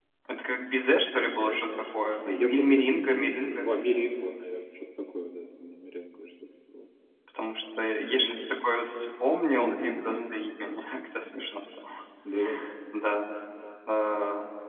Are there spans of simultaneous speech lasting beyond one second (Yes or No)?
Yes